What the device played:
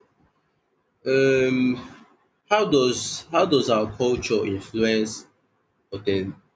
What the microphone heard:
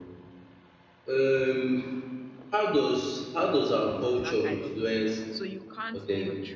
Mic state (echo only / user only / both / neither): both